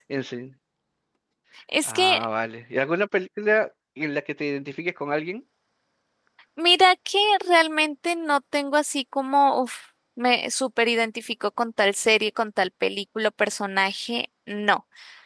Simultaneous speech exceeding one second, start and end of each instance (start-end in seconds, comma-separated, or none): none